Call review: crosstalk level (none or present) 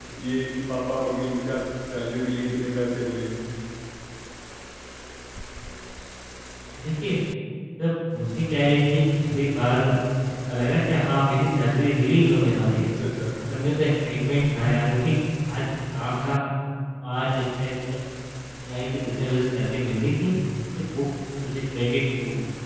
none